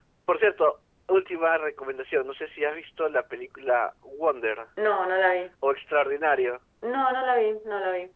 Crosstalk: none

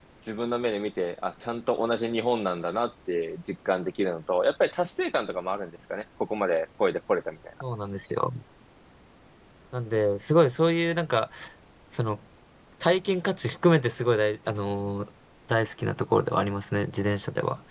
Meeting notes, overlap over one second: none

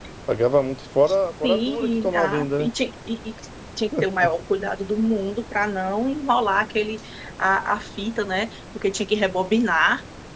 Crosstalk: present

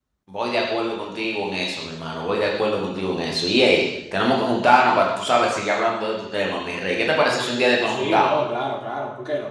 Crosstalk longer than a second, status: none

